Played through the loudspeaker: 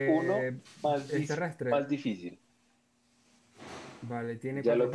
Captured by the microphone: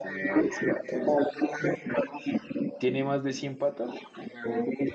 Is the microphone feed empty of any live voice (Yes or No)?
No